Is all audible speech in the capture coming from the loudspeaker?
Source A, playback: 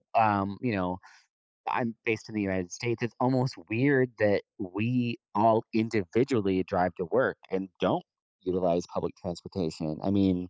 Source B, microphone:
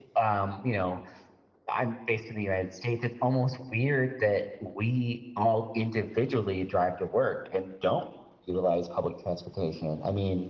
Yes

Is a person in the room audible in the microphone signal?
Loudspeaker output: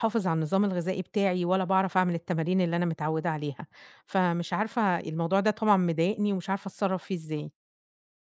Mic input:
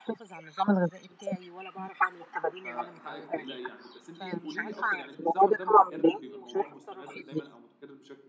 Yes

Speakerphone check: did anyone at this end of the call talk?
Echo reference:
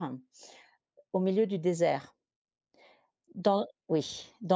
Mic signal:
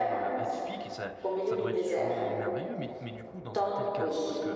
Yes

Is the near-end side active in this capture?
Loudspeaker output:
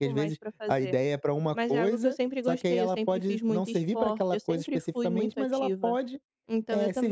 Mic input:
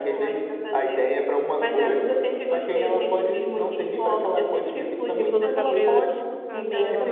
Yes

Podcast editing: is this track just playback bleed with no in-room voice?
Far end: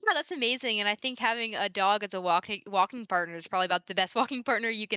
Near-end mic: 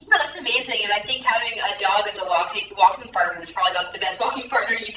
Yes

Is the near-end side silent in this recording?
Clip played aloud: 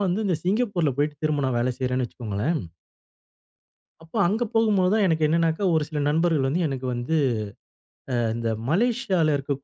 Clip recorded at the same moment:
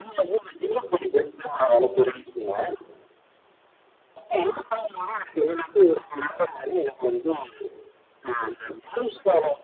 Yes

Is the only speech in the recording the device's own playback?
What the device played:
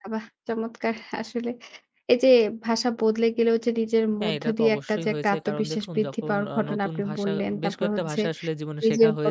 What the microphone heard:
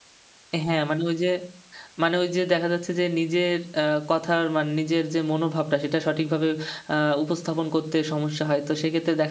No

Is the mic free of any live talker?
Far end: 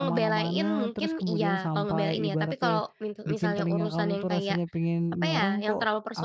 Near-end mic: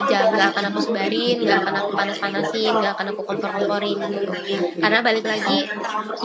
No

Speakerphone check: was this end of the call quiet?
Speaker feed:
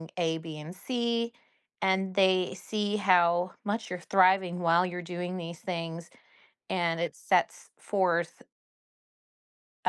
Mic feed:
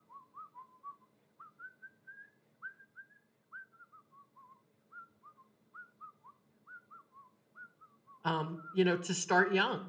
No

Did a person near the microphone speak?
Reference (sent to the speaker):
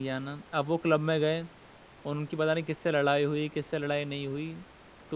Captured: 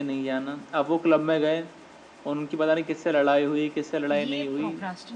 Yes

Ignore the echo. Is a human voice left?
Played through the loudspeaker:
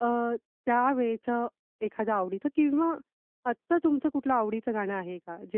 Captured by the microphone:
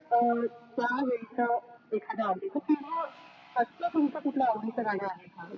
No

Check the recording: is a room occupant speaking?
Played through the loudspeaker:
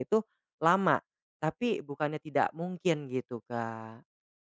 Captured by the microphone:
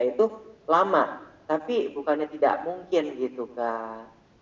No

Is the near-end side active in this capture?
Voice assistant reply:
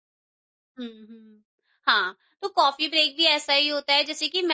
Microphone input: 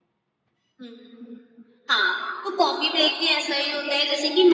No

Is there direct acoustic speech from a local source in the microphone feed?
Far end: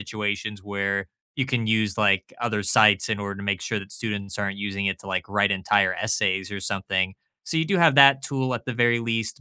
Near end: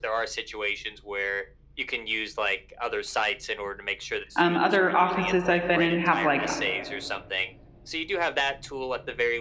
Yes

